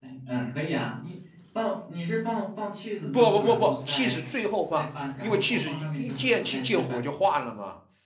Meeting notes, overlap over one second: present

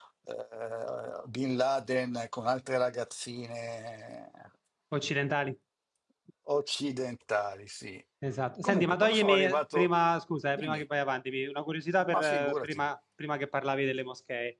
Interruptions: present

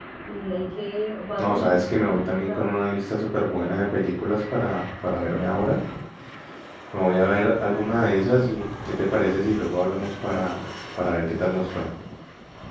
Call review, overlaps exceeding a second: present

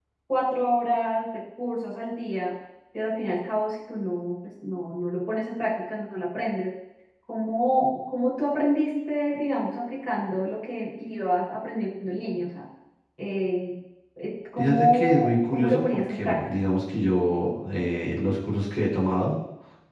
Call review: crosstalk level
present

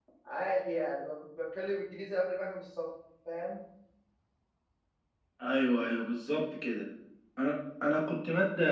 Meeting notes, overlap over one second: none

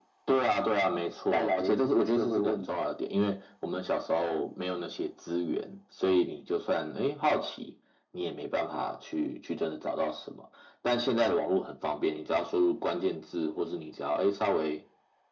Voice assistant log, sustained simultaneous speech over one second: present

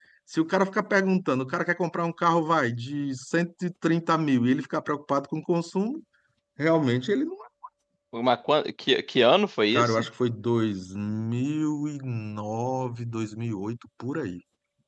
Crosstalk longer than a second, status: none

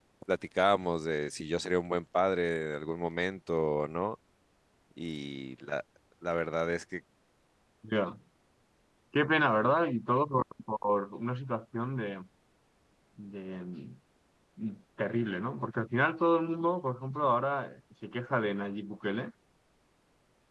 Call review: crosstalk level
none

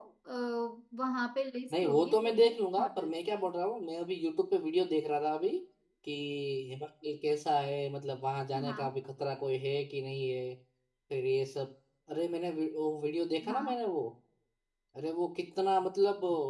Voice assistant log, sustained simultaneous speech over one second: present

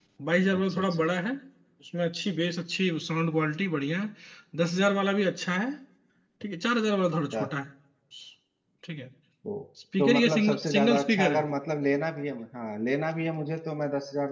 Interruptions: present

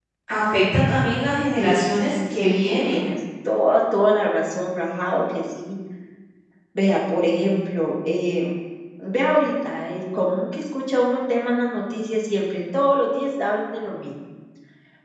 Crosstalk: present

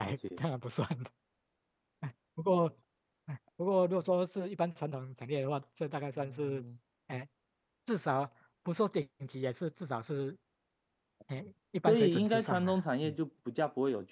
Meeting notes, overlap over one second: present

